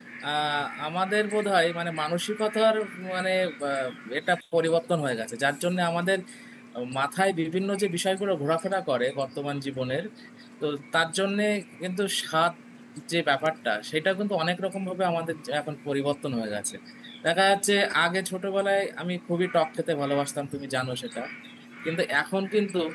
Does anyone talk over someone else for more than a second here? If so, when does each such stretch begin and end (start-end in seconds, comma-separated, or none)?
none